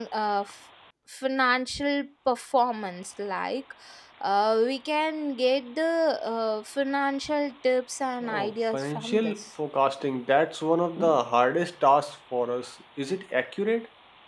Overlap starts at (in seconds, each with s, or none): 8.2 s